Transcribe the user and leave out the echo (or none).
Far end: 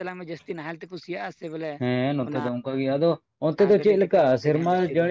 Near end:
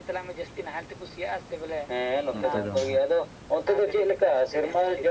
ᱱᱚᱛᱮ ᱫᱚ ᱱᱟᱦᱟᱜ